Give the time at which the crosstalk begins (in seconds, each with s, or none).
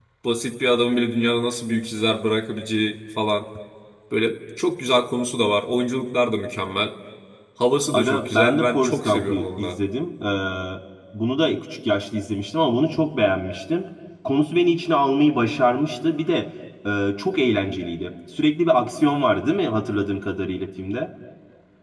7.9 s